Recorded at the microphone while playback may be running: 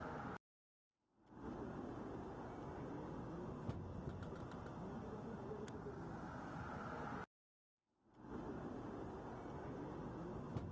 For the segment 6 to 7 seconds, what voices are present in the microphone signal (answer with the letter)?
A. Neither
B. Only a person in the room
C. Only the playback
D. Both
A